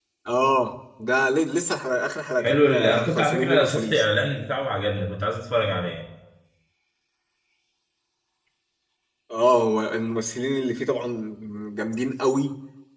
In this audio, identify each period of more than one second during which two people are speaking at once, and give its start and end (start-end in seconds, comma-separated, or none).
2.4-4.0